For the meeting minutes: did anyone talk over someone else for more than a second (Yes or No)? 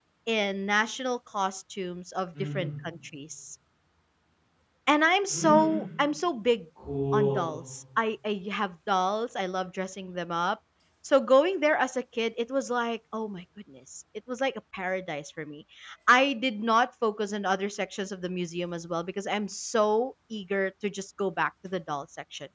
No